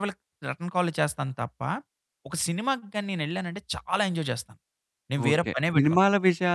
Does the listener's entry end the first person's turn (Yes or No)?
Yes